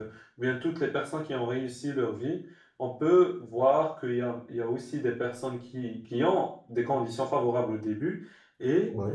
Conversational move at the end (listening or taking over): listening